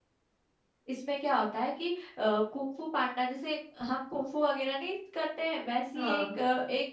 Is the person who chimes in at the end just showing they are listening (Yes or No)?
Yes